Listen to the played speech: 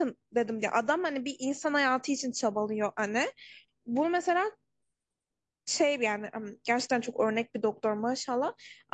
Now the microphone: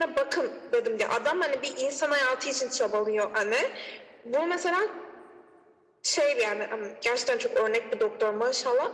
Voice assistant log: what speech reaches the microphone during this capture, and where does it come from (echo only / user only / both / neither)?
echo only